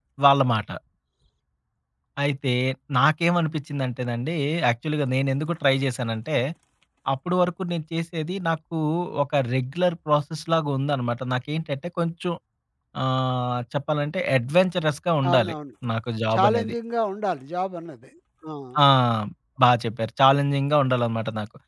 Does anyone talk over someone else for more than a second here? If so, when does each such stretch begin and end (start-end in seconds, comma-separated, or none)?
none